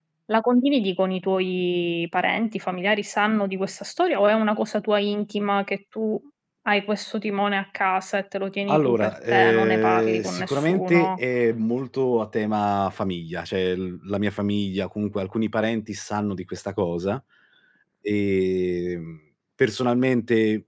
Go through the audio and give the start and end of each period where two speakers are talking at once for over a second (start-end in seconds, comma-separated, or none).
8.7-11.2